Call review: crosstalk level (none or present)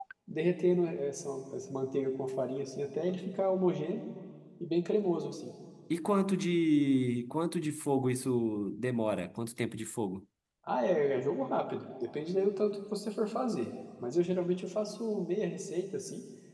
none